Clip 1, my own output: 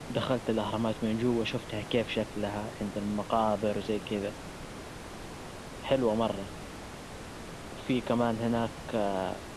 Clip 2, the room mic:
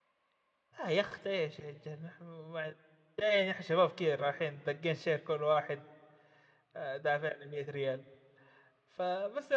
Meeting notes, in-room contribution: present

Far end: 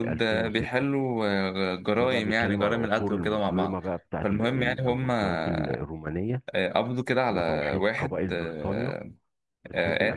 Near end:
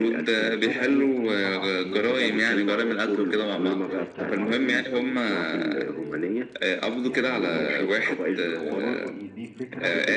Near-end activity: present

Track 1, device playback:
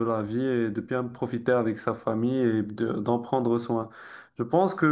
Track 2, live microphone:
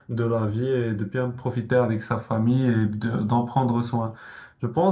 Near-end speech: none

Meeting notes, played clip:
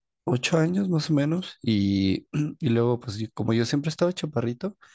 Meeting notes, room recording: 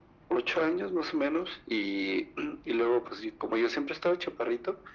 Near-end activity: none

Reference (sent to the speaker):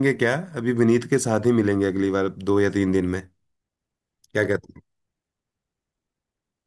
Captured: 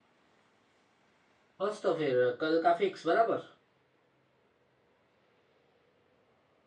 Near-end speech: present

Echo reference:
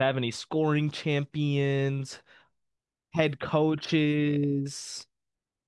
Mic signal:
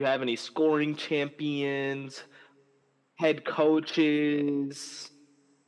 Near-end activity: none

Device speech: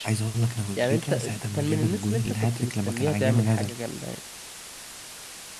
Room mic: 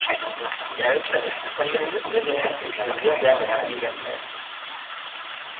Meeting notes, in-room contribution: present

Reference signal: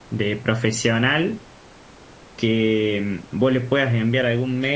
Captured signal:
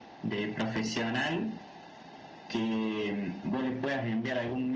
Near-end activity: none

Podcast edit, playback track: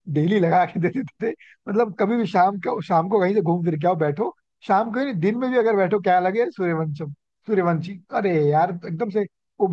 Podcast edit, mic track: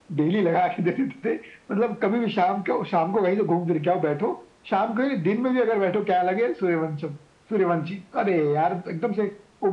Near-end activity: none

